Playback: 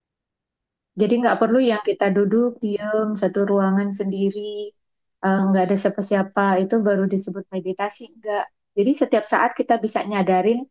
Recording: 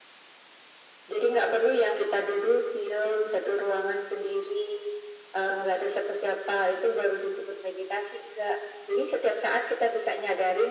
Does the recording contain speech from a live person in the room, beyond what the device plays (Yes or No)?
No